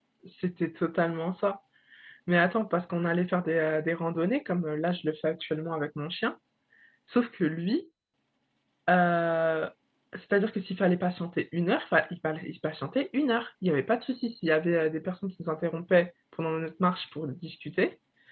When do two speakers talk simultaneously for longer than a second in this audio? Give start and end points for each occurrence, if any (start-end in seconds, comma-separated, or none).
none